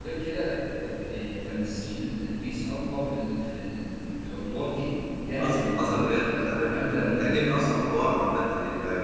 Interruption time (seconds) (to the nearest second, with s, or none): 5 s